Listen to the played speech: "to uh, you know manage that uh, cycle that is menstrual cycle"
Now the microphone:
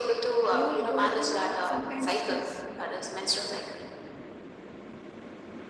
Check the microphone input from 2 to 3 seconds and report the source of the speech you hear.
both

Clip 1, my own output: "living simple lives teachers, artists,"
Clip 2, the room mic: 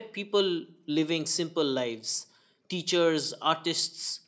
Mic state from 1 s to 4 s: echo only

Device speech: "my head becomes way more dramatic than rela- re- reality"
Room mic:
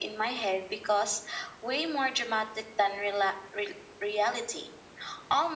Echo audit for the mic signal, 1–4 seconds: echo only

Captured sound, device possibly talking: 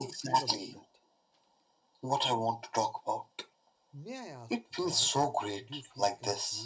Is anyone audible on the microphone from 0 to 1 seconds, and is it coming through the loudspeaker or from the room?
both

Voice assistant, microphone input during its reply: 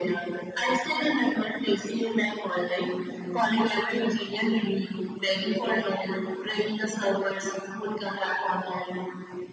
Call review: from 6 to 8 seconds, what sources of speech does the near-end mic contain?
echo only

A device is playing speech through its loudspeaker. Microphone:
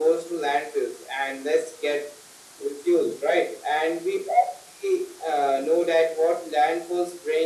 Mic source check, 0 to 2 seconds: echo only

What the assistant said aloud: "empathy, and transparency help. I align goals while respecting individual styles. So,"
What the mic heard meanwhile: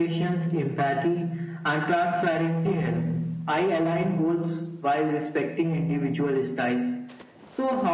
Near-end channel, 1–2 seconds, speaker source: echo only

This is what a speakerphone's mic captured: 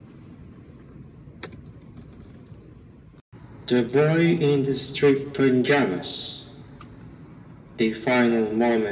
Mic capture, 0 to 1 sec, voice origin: neither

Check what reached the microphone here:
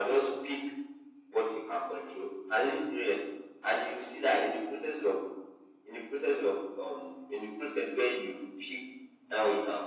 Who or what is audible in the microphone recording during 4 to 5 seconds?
echo only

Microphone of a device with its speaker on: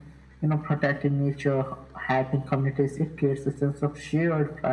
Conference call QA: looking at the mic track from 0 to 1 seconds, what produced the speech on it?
echo only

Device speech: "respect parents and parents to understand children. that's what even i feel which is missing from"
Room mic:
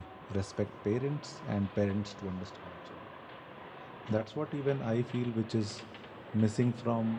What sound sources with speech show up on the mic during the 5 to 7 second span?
echo only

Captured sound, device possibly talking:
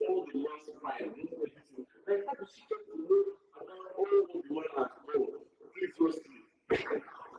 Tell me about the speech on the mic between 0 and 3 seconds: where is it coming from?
echo only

